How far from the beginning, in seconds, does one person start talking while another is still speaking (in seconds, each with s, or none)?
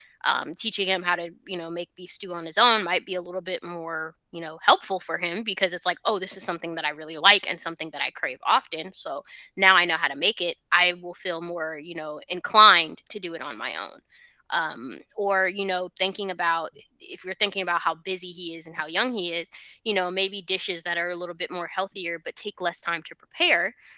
none